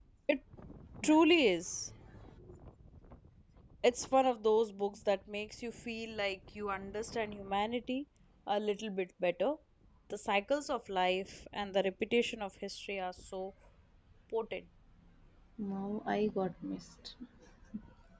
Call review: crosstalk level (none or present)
none